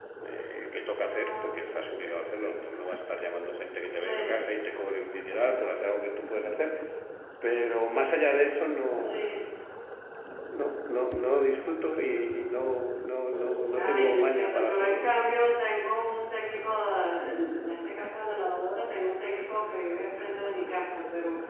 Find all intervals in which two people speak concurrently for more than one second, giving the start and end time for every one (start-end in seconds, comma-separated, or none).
13.8-15.1